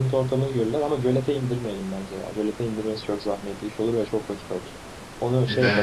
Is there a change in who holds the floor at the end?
No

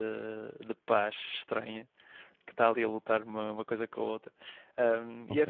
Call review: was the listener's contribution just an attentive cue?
Yes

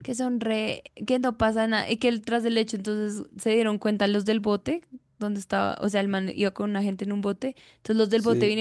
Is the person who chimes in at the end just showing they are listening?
Yes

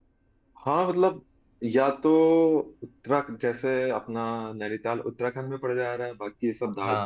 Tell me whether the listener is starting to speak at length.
No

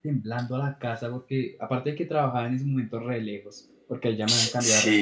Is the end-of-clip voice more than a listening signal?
No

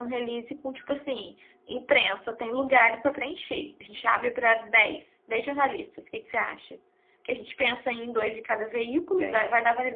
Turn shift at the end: No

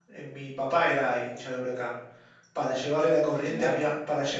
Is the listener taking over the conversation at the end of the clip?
No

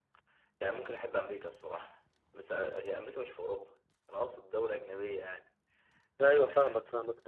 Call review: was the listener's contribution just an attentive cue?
No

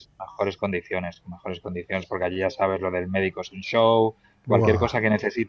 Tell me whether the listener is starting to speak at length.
No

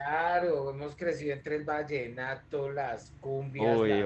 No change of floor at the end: No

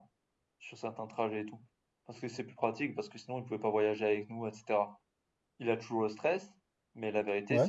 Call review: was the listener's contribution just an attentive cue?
Yes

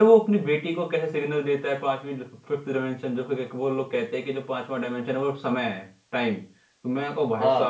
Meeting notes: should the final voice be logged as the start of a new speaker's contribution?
No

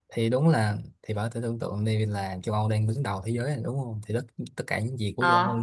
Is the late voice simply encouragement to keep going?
Yes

